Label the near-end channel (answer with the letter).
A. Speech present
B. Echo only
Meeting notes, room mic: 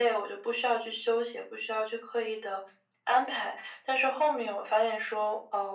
B